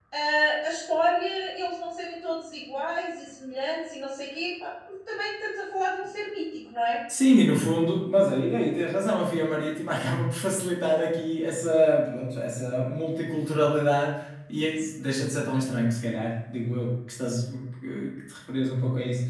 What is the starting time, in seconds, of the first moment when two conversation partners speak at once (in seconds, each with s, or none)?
none